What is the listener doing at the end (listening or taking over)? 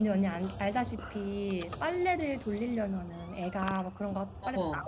listening